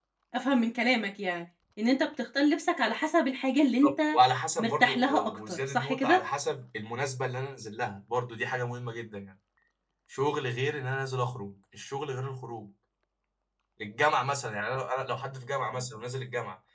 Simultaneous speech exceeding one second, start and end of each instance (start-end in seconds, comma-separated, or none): 4.6-6.2